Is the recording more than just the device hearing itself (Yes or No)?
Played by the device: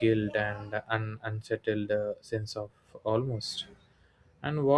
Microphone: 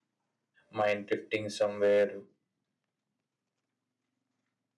Yes